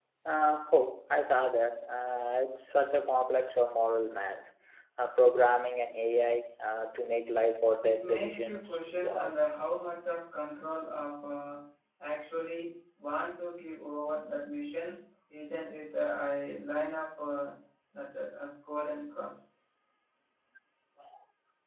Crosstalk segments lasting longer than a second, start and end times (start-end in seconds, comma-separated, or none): 7.8-9.3